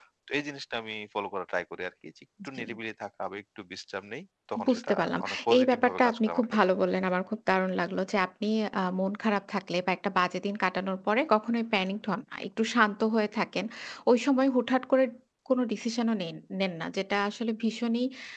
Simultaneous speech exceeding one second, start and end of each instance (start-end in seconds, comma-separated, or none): 4.7-6.5